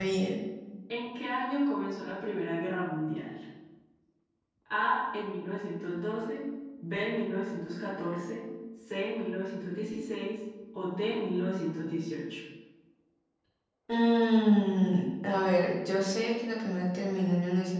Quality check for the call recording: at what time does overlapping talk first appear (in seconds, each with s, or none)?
none